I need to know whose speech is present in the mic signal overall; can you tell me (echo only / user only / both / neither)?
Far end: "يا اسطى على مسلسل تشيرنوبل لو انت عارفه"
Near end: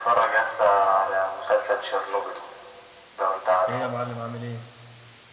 both